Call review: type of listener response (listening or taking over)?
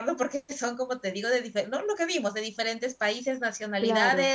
listening